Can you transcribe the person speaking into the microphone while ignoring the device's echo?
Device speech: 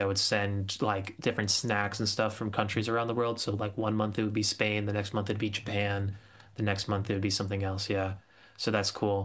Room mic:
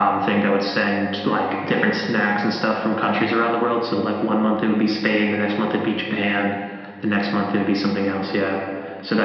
none

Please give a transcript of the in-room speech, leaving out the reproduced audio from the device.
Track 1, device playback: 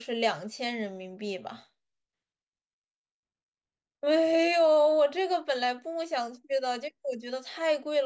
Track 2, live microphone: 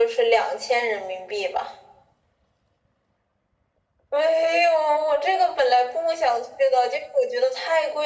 none

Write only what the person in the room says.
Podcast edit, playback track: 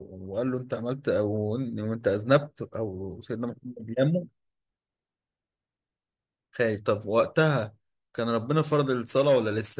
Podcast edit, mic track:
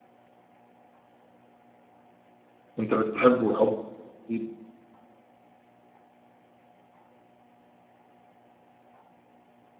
انت بتحبه حب شديد

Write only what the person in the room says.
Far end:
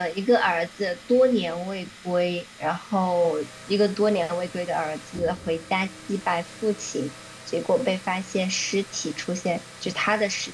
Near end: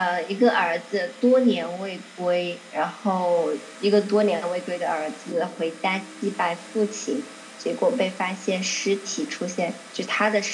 none

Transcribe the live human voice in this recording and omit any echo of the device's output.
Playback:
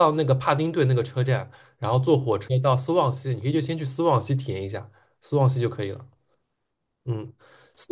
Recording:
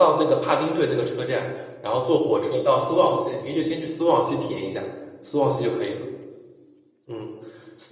none

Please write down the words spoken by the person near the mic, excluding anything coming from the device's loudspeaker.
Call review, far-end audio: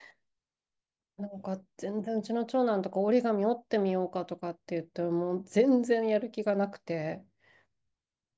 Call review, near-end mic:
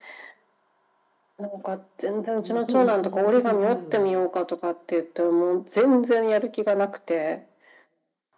うん、そうそう、そこそこ重いので、

